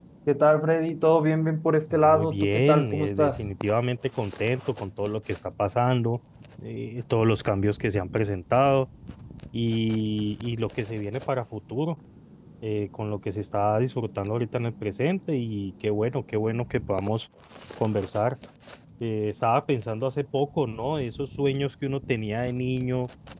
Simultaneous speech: Yes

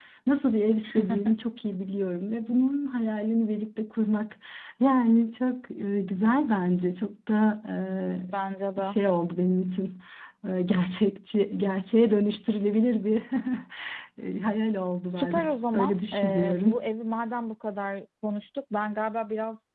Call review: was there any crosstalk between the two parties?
Yes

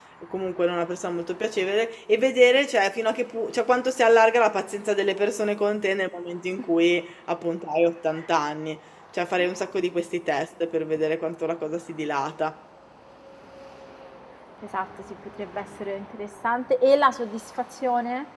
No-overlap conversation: Yes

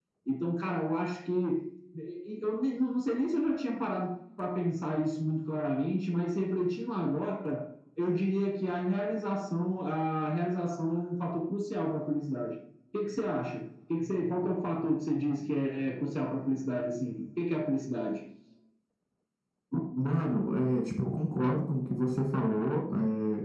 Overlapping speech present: No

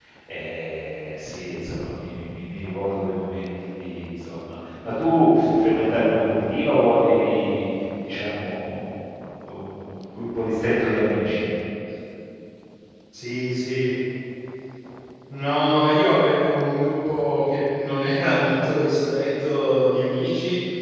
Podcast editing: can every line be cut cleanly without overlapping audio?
Yes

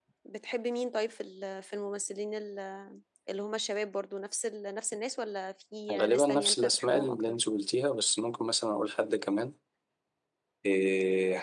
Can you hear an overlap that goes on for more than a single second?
Yes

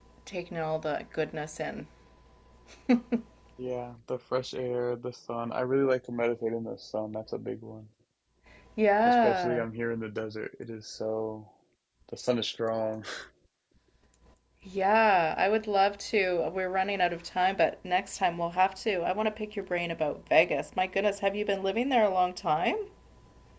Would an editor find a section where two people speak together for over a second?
No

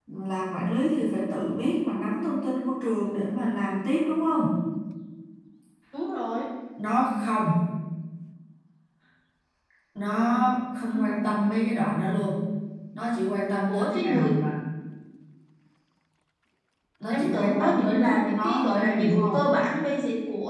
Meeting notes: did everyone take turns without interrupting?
No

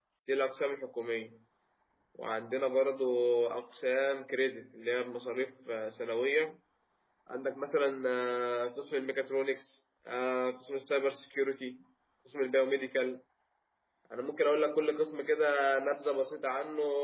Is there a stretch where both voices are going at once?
No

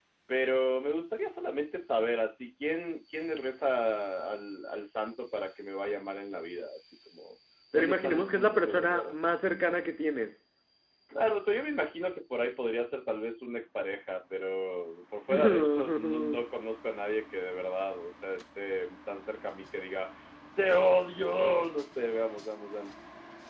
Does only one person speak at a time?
No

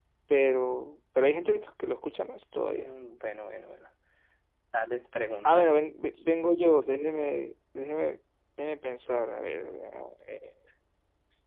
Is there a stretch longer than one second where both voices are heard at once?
No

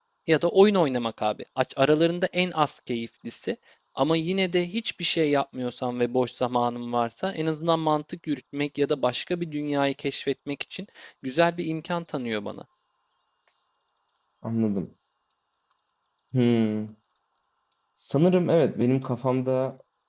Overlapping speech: No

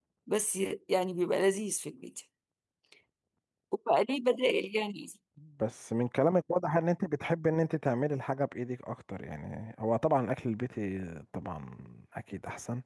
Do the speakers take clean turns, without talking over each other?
Yes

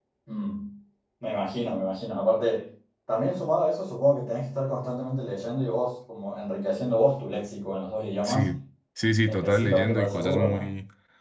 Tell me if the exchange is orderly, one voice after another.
No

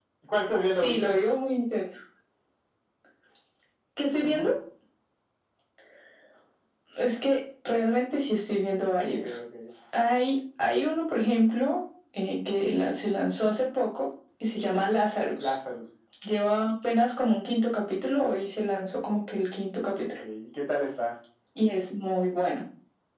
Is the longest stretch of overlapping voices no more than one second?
Yes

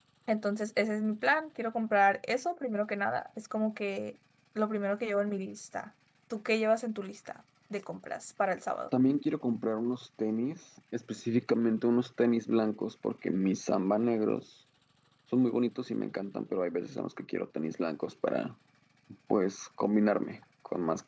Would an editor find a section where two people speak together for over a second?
No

